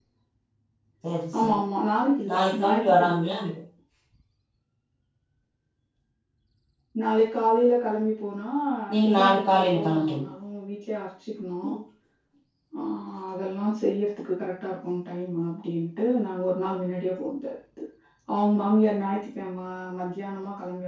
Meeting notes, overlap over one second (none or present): present